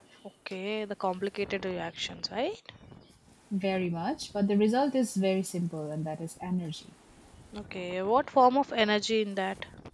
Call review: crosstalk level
none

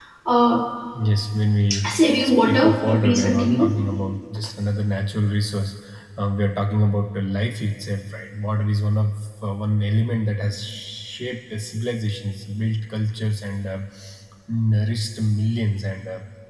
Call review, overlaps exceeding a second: present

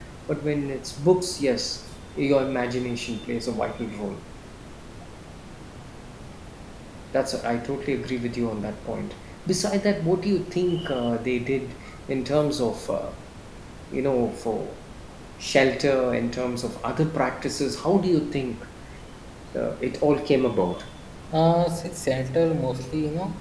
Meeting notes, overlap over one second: none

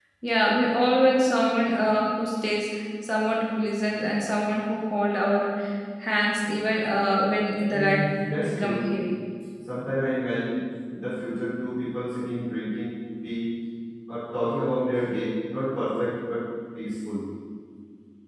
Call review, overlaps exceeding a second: none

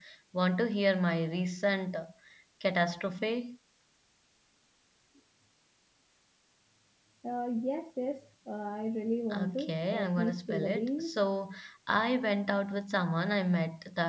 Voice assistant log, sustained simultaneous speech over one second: present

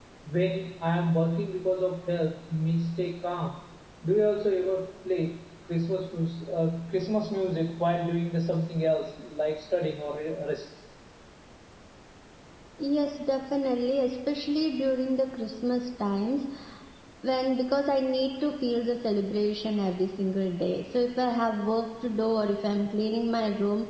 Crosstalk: none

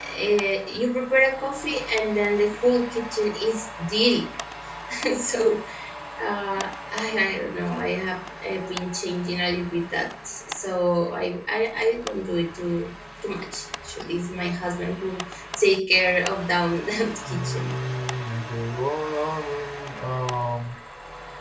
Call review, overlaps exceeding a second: none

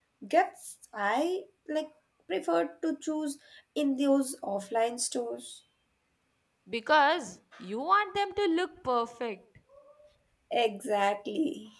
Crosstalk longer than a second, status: none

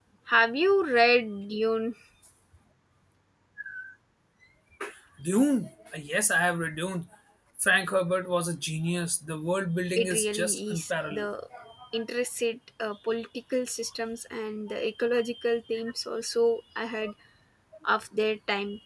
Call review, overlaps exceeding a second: present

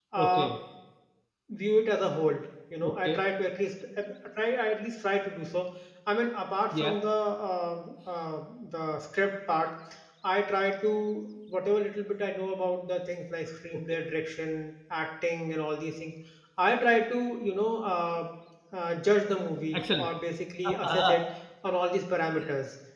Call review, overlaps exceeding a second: none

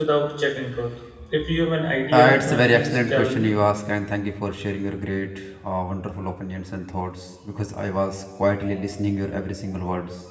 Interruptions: present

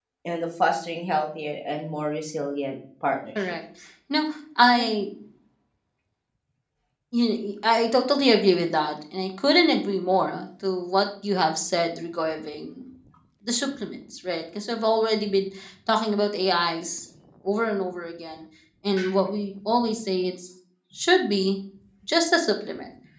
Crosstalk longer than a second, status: none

